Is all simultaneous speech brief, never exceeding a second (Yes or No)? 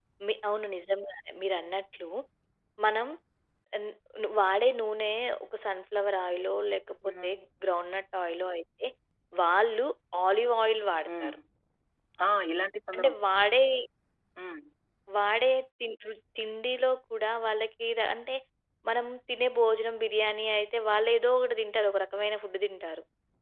Yes